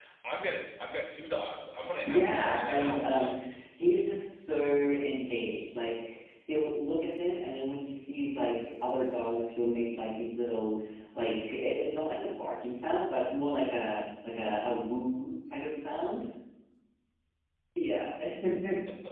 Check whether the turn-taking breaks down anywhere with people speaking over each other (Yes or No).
Yes